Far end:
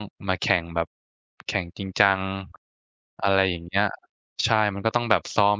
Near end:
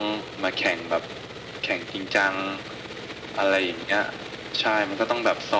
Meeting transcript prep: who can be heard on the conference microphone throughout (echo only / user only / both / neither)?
echo only